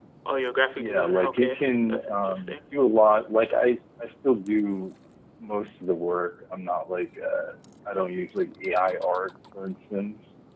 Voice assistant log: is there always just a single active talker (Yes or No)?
No